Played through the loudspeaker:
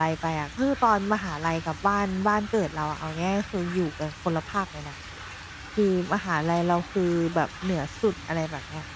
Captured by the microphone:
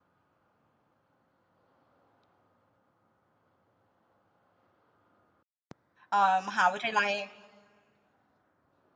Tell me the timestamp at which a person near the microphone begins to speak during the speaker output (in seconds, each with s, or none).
6.1 s